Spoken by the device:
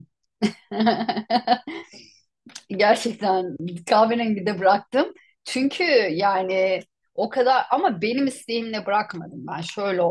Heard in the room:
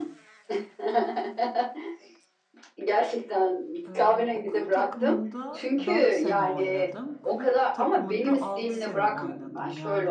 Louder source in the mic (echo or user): echo